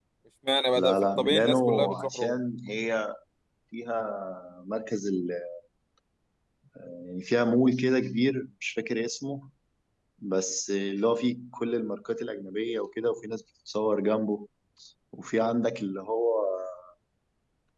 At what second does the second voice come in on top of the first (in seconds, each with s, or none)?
0.8 s